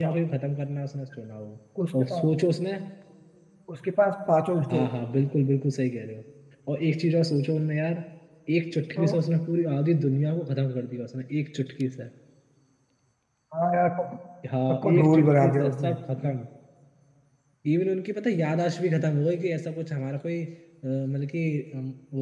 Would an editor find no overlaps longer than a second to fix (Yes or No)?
No